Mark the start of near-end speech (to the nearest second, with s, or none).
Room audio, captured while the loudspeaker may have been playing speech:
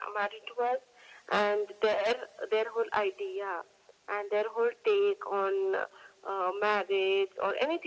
none